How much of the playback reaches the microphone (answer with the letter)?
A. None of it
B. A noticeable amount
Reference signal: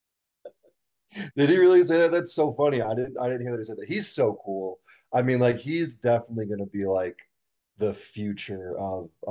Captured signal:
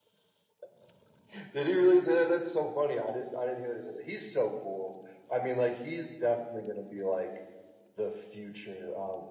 B